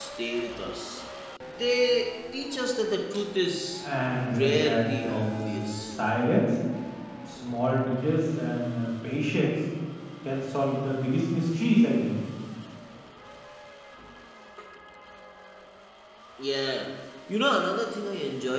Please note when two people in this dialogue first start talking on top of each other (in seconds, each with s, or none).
3.8 s